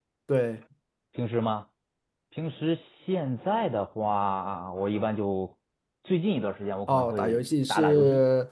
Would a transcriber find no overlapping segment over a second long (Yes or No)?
No